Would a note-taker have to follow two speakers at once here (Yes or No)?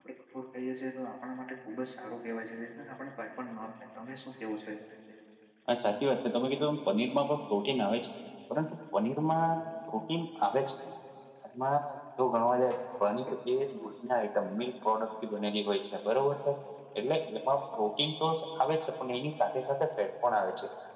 No